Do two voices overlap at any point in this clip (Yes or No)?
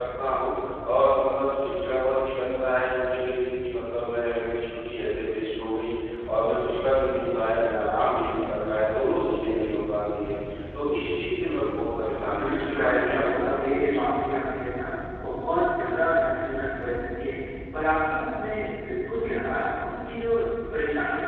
Yes